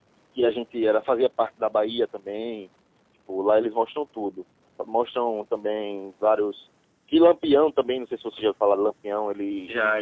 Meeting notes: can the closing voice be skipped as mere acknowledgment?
Yes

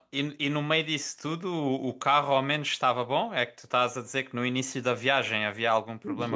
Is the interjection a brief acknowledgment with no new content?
No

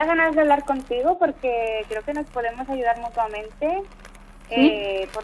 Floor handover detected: No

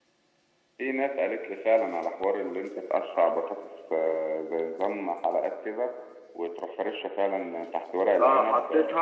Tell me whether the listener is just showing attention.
No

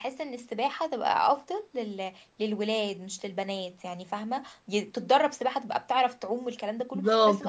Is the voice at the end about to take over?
Yes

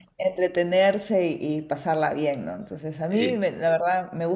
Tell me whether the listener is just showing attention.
Yes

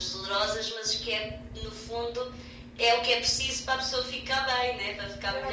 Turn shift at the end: Yes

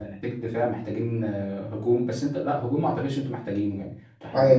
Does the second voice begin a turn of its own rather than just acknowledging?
Yes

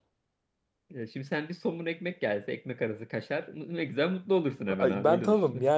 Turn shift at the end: Yes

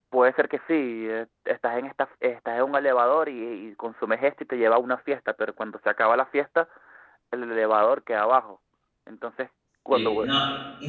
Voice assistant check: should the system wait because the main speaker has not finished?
No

